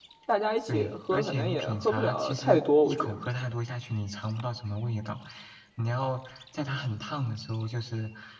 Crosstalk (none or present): present